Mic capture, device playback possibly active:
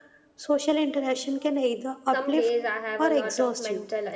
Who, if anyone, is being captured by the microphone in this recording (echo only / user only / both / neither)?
both